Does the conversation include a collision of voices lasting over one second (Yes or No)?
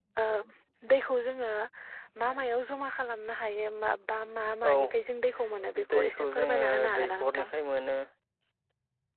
Yes